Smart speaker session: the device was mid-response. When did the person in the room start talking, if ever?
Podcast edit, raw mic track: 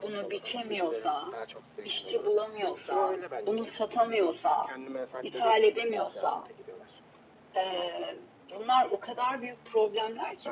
none

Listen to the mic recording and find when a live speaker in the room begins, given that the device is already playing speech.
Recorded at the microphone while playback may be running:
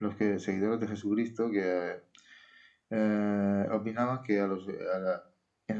none

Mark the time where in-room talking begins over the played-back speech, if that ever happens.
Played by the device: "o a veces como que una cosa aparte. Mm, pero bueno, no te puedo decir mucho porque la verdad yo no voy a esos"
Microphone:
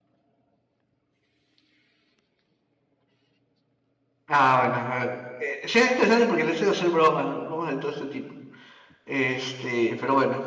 4.3 s

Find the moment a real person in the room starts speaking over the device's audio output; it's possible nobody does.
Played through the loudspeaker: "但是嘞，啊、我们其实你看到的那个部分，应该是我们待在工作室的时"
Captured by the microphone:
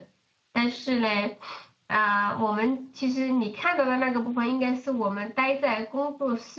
none

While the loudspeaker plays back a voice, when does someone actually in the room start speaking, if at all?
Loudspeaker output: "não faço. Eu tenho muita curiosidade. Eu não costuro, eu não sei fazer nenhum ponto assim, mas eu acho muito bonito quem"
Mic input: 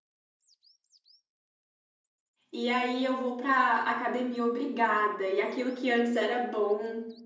2.5 s

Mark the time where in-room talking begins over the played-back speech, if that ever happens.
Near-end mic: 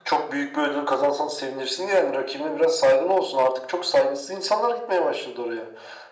none

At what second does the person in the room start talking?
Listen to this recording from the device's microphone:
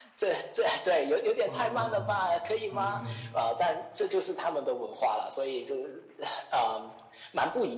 1.4 s

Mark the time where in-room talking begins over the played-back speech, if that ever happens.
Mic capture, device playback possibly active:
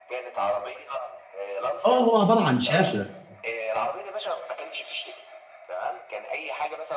1.8 s

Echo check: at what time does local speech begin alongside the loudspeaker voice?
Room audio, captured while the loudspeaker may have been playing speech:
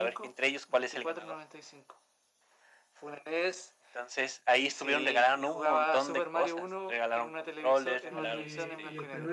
8.1 s

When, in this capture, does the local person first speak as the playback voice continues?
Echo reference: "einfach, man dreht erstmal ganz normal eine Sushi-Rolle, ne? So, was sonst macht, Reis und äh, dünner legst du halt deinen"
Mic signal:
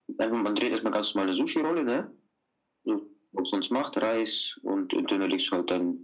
none

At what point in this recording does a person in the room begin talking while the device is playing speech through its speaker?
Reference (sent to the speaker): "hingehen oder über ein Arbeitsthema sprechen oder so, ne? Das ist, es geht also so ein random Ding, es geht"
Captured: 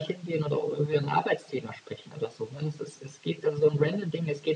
none

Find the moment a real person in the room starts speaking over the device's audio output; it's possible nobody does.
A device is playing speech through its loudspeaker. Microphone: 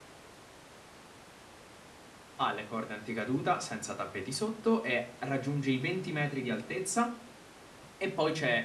2.4 s

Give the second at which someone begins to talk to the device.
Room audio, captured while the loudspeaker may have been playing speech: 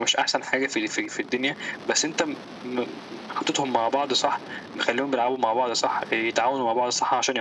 none

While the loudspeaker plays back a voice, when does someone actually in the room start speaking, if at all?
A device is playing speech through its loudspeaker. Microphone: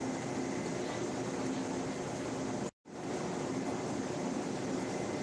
none

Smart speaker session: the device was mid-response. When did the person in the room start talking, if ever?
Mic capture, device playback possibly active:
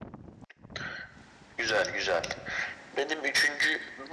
none

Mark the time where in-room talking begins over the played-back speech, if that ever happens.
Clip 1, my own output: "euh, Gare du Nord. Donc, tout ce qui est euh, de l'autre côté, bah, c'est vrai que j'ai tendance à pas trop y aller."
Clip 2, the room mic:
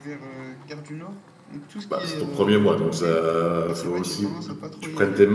1.9 s

